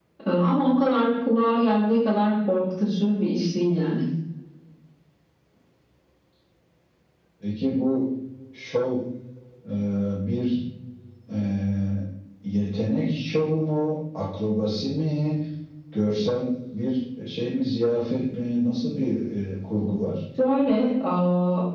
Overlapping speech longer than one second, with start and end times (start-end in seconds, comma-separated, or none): none